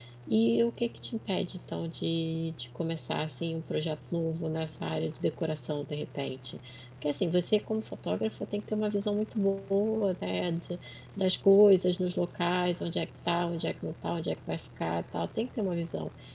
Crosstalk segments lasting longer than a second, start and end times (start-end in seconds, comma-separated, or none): none